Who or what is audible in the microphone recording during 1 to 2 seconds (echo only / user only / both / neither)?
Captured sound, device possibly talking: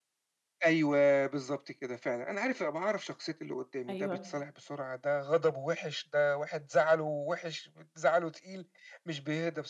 echo only